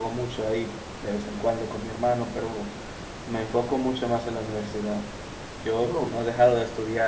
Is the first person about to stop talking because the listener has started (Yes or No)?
No